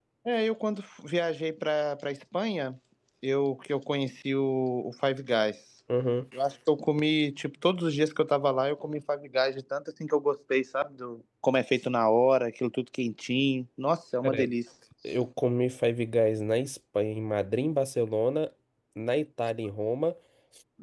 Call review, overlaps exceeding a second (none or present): none